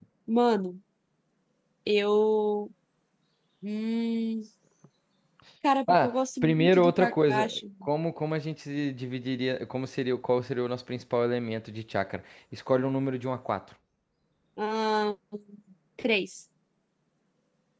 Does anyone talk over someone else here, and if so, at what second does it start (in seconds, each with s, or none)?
5.9 s